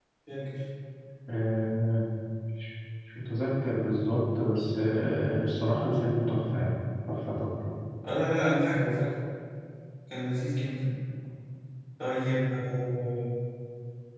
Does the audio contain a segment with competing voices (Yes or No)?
No